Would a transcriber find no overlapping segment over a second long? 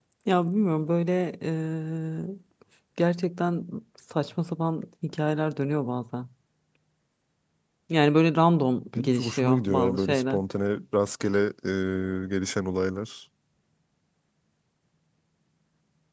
No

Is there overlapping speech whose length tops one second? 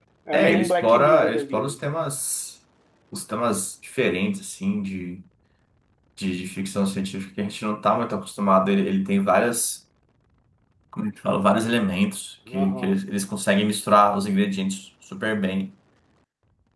Yes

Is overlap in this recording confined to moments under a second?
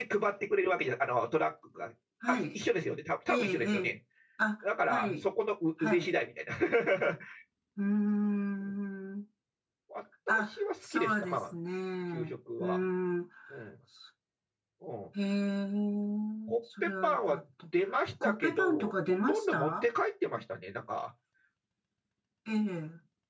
No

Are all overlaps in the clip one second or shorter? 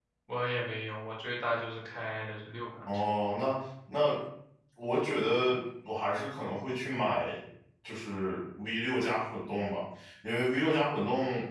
Yes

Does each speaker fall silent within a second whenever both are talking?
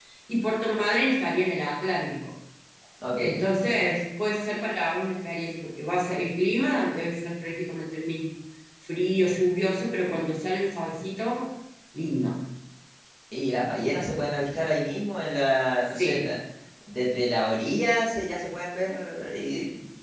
Yes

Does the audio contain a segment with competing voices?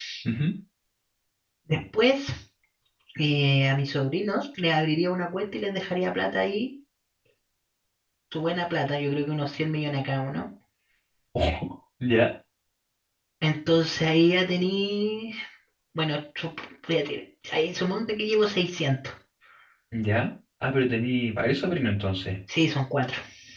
No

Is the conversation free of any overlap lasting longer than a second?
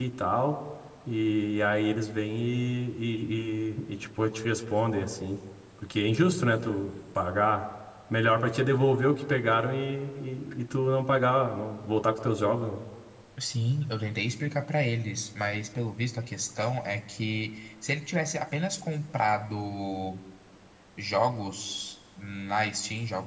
Yes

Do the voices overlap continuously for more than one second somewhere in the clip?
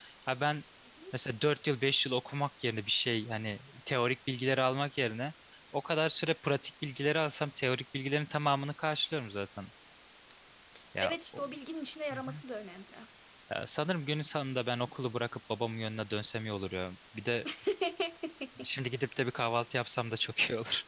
No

